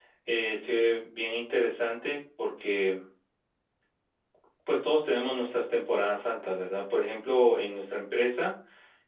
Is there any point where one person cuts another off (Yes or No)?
No